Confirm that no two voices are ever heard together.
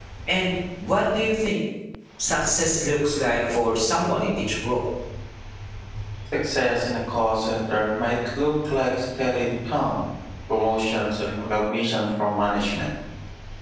Yes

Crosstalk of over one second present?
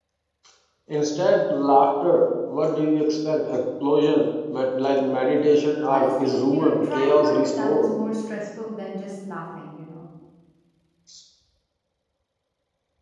Yes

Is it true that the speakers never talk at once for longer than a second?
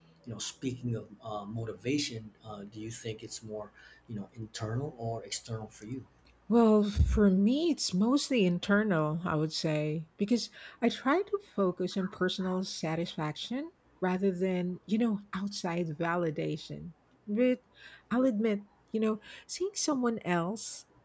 Yes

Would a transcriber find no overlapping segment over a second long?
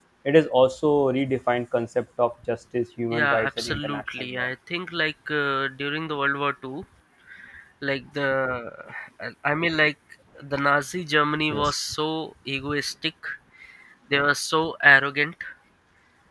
No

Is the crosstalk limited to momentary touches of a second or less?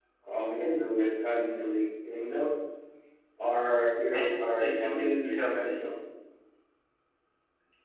No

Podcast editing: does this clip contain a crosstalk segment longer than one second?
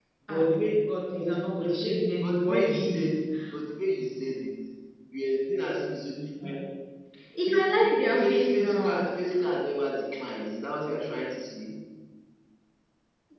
Yes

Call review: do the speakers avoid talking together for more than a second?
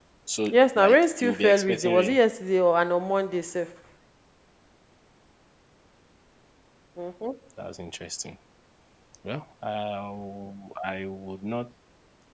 No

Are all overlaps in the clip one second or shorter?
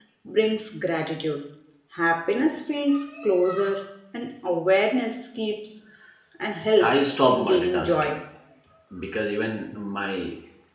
No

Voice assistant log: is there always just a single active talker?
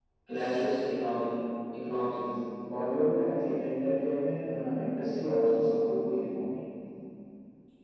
Yes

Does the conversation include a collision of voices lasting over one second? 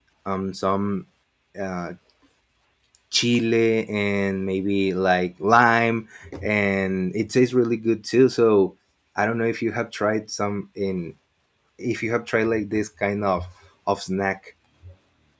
No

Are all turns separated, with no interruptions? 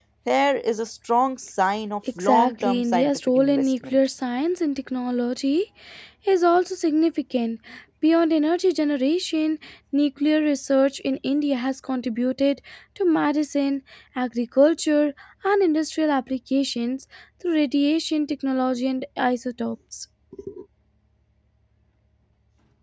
No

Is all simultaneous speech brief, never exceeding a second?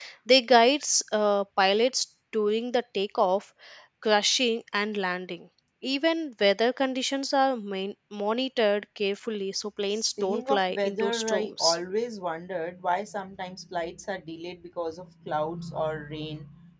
No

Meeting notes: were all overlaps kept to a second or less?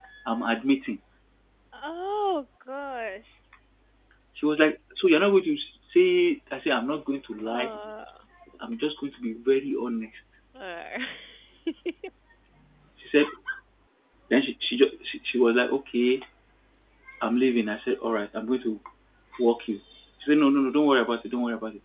Yes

